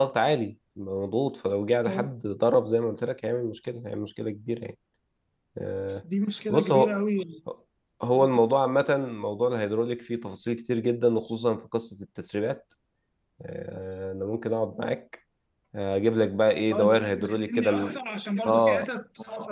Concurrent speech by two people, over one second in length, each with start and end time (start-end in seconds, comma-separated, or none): 16.7-18.0